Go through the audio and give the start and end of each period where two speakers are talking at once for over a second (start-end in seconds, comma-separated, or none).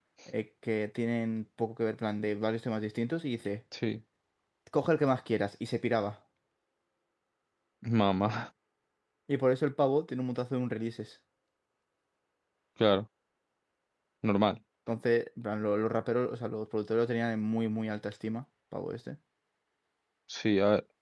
none